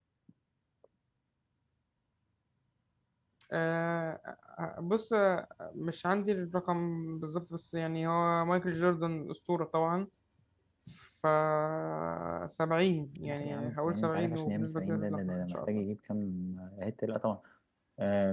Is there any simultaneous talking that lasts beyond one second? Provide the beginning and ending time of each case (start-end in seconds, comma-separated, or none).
13.2-15.8